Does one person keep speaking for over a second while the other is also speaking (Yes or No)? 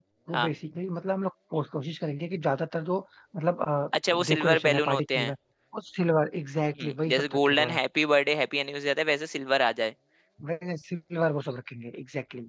Yes